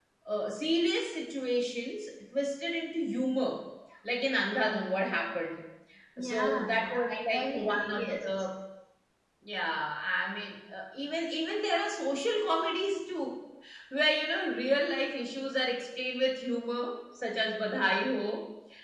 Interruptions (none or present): present